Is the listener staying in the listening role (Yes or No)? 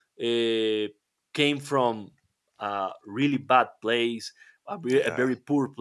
Yes